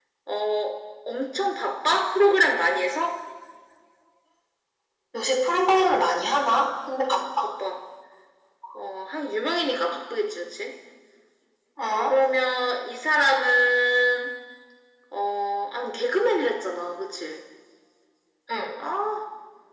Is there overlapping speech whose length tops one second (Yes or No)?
No